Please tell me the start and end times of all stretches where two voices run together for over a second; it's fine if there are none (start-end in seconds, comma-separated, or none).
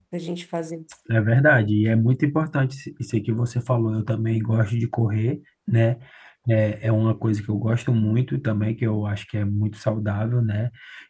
none